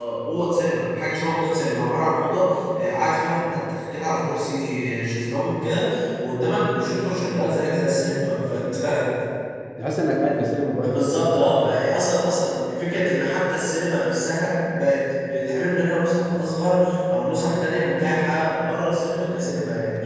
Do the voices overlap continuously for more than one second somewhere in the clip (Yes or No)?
No